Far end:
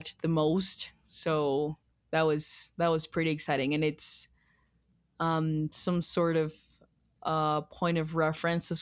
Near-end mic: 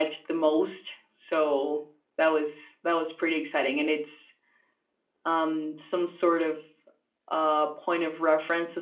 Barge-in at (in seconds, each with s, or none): none